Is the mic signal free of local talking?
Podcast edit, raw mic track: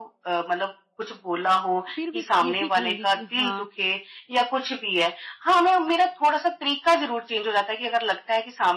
No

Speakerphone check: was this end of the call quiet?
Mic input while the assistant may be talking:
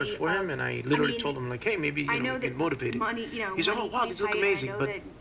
Yes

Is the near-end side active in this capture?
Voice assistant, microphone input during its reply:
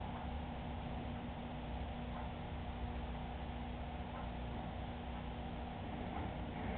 No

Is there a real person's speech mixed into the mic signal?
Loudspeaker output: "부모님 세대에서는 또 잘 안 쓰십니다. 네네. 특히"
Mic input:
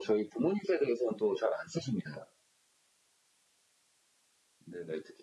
No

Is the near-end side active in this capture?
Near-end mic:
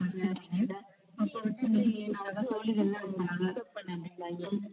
No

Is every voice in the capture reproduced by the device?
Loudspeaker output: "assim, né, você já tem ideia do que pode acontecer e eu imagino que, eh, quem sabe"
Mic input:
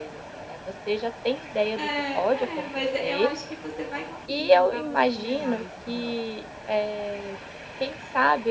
No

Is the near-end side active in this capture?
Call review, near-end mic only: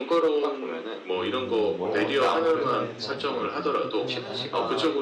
Yes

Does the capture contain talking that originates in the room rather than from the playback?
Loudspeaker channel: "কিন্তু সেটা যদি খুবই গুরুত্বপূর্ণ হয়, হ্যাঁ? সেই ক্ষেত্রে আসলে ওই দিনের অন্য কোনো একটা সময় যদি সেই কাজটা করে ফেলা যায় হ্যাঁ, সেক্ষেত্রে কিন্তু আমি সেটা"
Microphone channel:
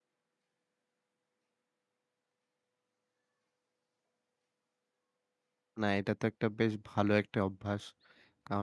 Yes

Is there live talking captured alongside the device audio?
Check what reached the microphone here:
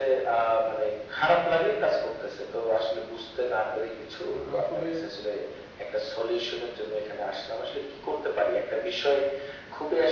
Yes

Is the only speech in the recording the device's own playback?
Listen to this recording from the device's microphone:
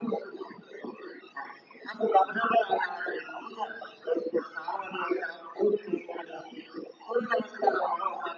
Yes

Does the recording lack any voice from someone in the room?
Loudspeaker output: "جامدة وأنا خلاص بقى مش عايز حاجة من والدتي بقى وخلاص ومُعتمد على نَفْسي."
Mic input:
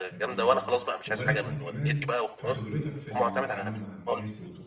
No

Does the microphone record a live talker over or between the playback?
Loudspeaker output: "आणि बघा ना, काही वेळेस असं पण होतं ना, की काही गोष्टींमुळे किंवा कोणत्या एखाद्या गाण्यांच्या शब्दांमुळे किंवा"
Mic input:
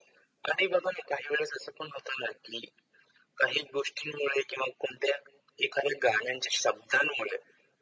No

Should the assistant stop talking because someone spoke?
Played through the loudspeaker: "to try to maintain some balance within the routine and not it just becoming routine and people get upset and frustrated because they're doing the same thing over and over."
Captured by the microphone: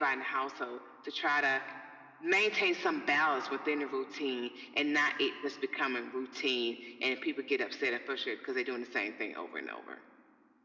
No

